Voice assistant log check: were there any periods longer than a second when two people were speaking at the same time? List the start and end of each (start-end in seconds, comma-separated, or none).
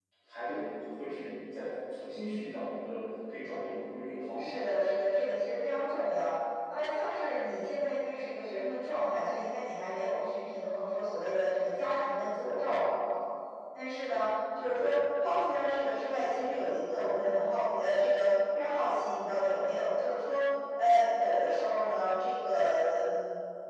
none